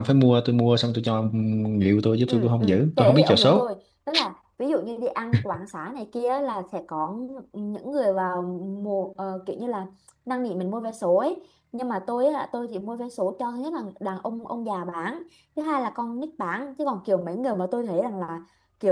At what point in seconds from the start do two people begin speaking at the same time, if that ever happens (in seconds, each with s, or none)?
2.3 s